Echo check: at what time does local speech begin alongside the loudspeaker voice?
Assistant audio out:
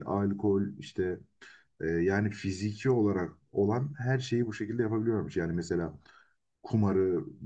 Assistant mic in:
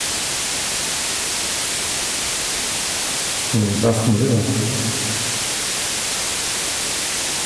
3.5 s

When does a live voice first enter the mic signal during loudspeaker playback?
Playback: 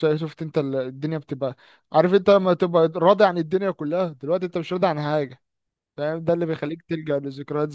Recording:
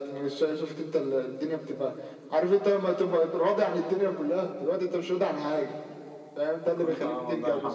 6.8 s

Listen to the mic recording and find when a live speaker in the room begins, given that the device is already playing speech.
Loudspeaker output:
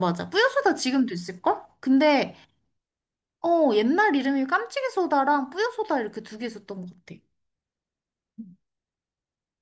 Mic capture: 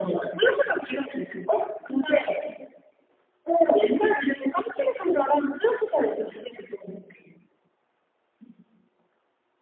none

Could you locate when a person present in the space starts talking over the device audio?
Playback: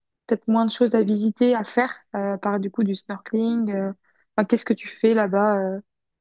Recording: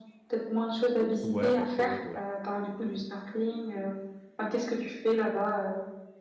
1.2 s

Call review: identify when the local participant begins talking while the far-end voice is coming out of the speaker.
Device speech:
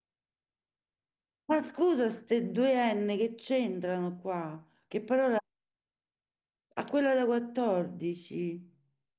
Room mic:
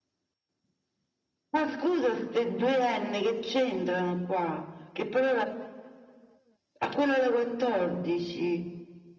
none

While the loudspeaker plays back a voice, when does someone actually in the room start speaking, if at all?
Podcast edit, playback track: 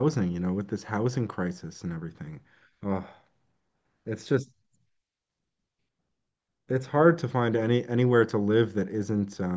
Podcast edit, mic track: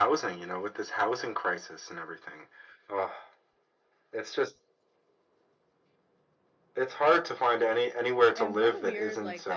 8.4 s

